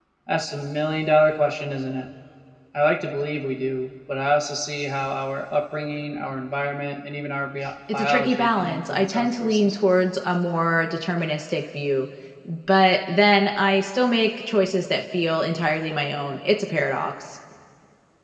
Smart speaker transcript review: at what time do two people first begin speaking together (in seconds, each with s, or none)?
7.9 s